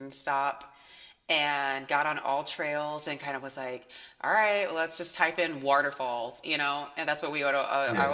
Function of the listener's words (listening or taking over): listening